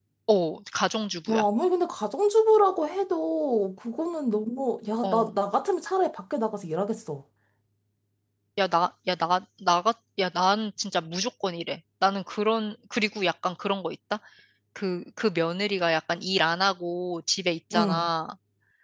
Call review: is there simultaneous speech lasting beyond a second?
No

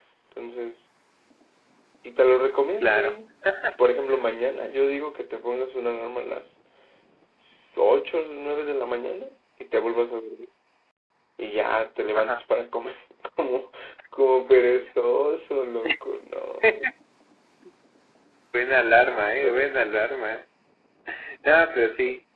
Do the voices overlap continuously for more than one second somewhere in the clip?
No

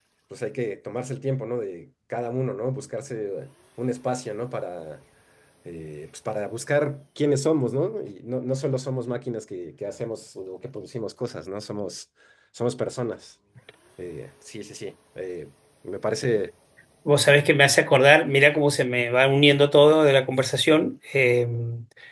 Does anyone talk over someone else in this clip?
No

